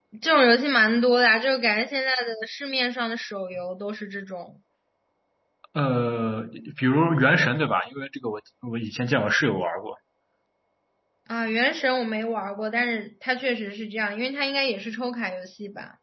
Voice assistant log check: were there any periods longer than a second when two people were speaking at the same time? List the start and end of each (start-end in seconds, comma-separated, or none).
none